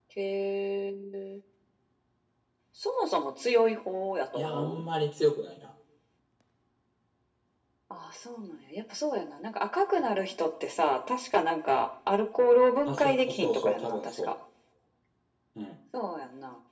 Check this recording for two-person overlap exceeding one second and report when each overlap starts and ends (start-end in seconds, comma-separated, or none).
12.8-14.3